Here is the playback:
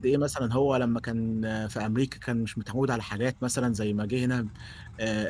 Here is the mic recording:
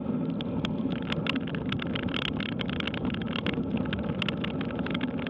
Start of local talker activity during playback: none

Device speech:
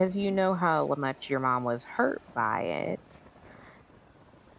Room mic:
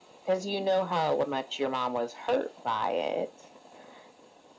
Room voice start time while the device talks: none

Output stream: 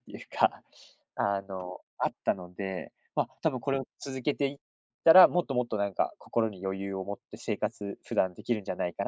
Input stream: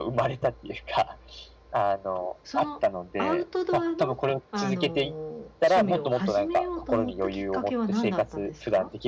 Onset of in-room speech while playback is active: 2 s

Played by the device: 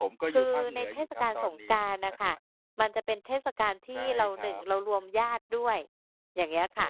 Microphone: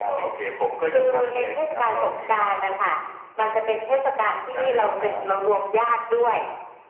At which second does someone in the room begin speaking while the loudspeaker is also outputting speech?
none

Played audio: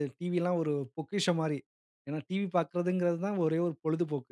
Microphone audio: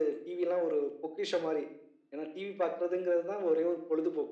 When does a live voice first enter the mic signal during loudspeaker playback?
none

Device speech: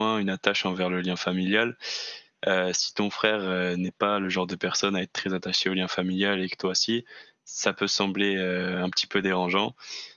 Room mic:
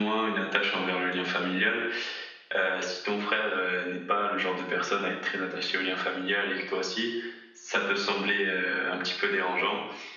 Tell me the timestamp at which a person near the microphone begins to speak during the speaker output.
none

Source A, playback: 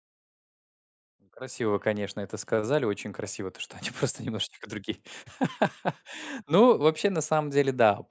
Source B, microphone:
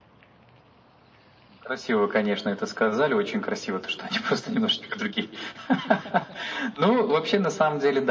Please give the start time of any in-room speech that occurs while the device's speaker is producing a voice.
none

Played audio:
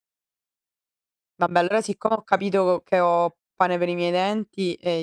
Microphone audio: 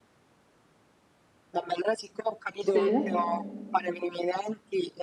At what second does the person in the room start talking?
3 s

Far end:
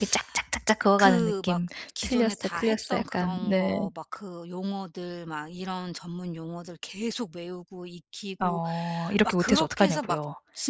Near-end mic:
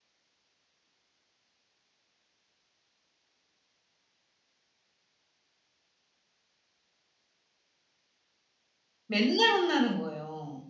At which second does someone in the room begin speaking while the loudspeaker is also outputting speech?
9 s

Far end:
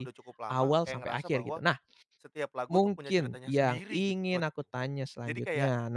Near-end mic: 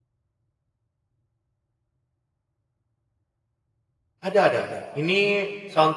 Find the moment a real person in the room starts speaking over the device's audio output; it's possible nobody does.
4 s

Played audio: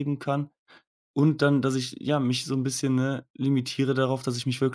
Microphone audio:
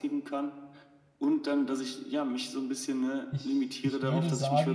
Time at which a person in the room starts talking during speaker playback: 3 s

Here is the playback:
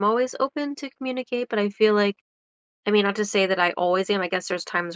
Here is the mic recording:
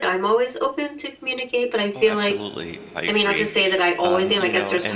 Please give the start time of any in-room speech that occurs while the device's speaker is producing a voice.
2 s

